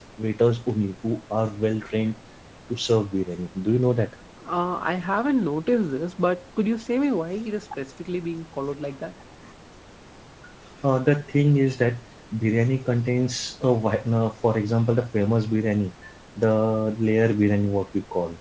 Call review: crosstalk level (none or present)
none